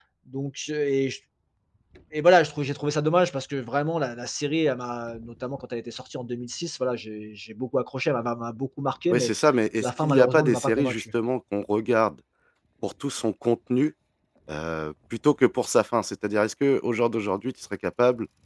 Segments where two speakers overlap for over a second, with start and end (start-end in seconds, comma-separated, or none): 9.8-11.0